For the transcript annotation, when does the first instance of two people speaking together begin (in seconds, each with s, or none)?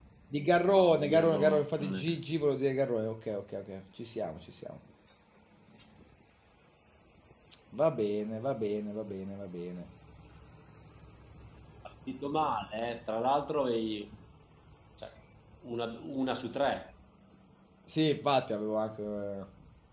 0.7 s